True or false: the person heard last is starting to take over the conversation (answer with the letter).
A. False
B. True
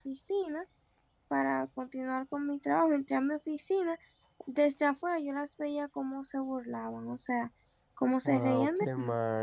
B